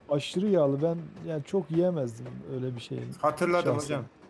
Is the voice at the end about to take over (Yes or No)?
Yes